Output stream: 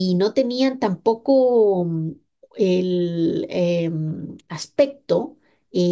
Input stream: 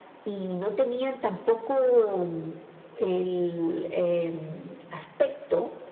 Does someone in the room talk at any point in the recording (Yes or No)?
No